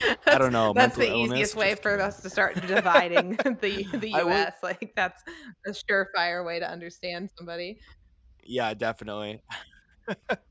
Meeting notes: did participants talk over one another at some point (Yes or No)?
Yes